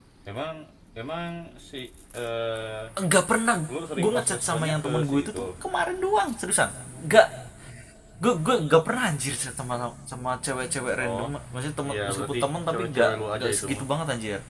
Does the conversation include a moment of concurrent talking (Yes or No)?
Yes